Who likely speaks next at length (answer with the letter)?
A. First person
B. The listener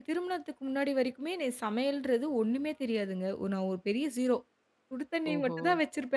A